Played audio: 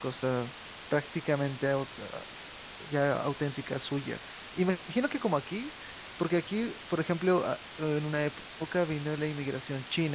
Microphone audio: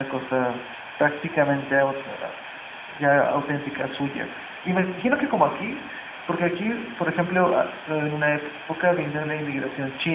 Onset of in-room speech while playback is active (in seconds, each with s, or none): none